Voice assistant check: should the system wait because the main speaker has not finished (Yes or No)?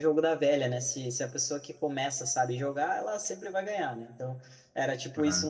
Yes